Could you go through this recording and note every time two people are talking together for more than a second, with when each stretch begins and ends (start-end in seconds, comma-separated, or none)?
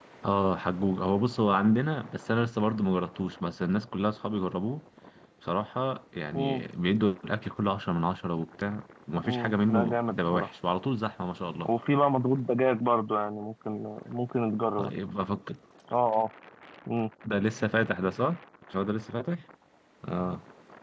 9.2-10.5